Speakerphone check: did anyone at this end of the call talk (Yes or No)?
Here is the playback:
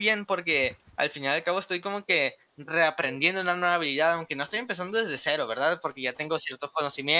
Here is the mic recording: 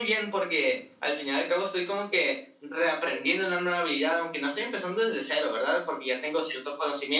No